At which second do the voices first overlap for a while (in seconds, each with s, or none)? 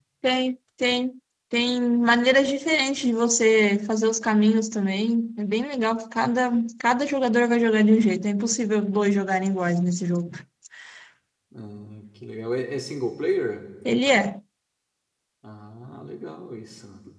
none